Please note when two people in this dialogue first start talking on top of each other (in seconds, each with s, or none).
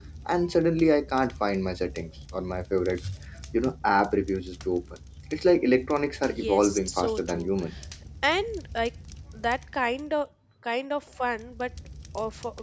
6.2 s